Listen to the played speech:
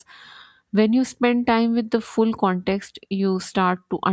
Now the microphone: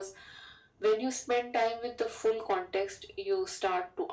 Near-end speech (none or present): none